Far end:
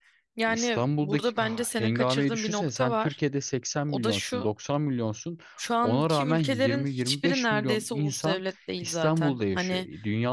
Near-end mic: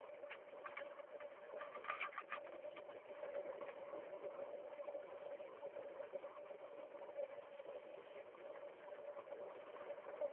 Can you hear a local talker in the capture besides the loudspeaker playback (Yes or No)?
No